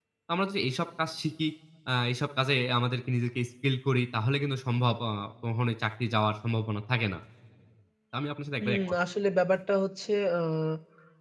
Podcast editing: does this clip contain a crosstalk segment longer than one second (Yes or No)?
No